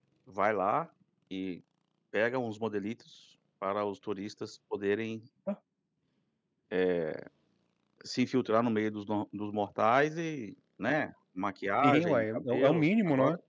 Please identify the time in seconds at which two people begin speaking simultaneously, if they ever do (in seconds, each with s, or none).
11.8 s